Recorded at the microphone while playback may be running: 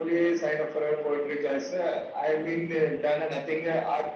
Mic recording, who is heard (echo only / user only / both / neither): echo only